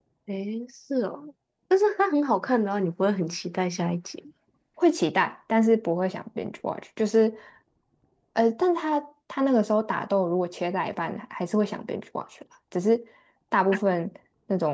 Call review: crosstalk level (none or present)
none